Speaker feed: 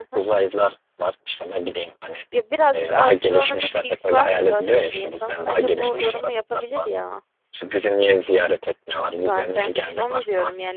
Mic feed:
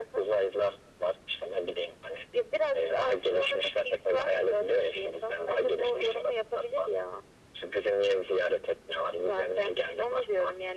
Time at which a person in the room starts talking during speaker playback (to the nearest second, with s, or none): none